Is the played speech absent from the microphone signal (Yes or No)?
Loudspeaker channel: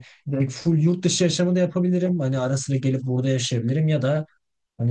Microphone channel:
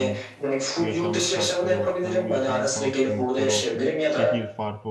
No